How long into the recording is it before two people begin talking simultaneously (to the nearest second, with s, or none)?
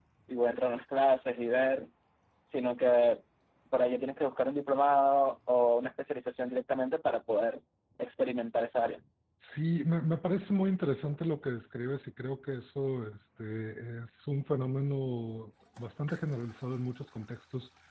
none